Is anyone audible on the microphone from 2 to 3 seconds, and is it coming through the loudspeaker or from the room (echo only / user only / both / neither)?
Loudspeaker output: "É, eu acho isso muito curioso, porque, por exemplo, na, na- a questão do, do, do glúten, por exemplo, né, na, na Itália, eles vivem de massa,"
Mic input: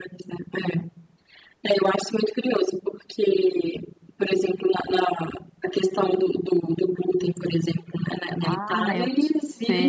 echo only